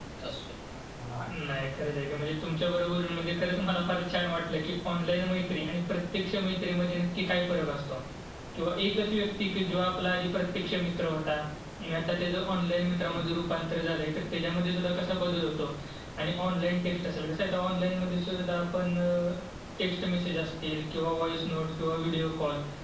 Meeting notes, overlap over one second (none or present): none